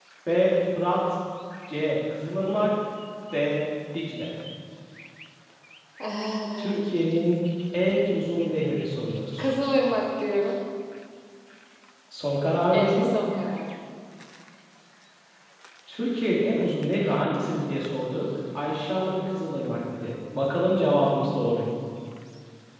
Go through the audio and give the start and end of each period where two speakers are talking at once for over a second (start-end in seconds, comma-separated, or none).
none